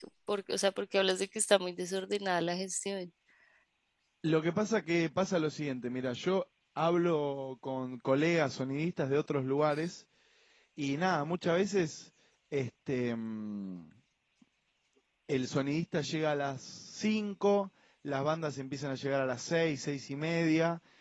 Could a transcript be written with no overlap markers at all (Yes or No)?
Yes